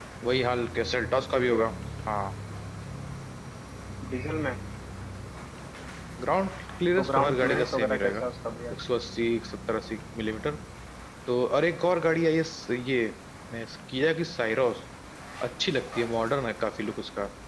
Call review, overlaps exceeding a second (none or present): present